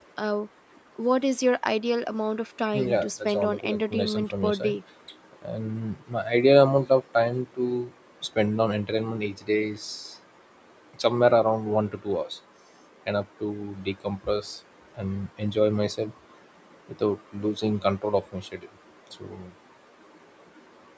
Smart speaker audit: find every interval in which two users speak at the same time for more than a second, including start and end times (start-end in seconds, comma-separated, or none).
2.7-4.8